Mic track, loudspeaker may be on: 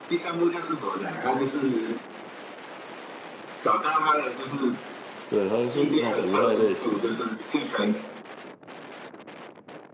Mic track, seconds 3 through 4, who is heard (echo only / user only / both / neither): echo only